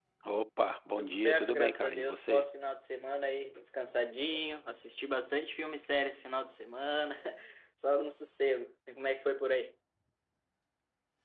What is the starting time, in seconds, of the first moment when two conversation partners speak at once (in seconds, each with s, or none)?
1.0 s